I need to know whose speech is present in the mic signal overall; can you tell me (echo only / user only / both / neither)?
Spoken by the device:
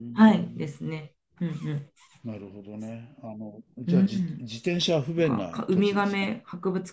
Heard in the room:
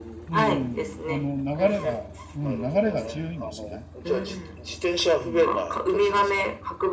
both